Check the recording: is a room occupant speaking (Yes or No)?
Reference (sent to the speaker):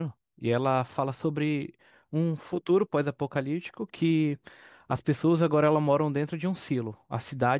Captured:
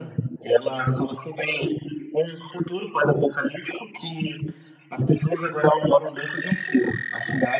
No